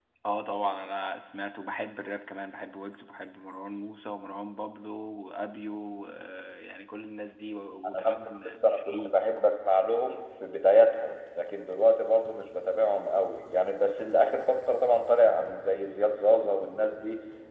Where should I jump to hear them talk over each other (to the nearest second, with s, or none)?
8 s